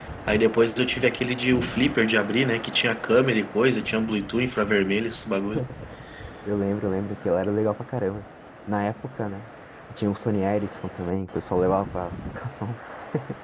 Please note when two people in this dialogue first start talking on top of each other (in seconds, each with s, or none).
none